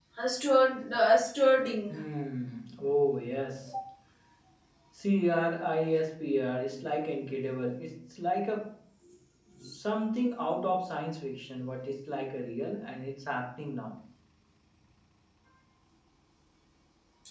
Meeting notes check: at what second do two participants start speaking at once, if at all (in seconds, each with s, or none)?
none